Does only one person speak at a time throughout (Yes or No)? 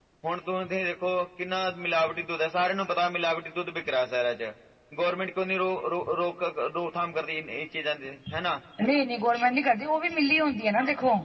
Yes